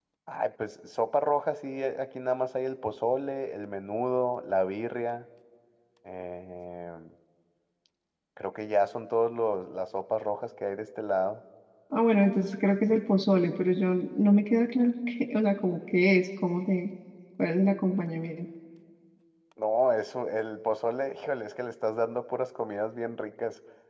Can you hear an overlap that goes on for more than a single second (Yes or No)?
No